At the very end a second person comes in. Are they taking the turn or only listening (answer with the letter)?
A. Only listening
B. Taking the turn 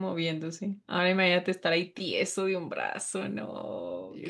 B